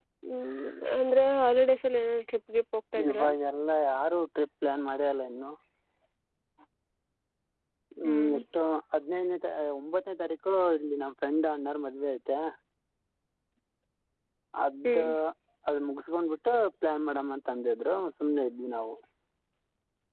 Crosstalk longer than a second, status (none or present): none